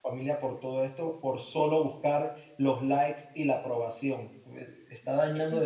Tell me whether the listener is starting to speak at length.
No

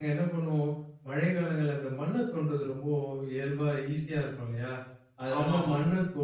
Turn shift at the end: No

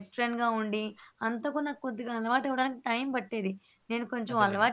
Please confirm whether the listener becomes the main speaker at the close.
No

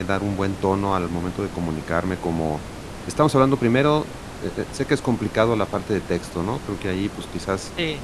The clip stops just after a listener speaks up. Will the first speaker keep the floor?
Yes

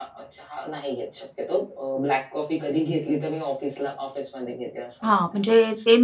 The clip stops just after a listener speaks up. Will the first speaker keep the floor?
No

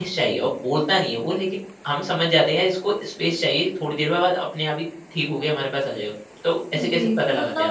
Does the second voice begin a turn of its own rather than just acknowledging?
Yes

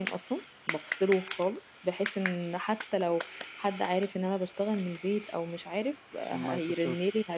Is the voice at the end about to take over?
No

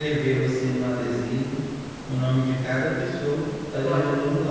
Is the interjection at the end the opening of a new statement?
No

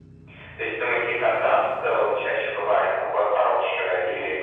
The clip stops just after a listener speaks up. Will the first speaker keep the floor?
No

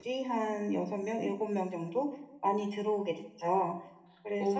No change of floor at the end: No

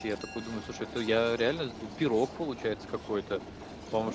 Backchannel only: Yes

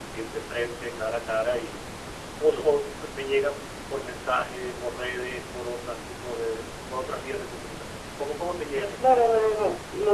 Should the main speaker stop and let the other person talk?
Yes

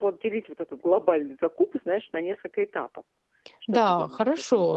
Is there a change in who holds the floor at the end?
Yes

